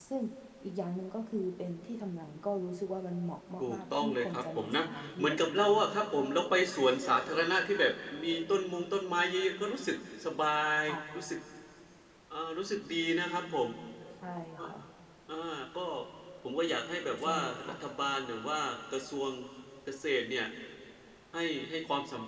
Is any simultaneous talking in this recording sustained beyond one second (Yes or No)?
Yes